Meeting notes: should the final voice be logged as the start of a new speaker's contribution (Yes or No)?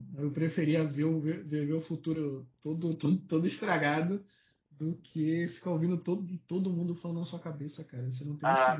Yes